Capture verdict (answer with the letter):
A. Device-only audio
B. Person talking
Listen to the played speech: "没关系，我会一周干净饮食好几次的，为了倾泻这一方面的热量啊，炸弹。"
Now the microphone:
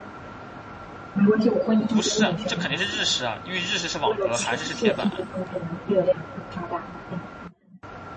B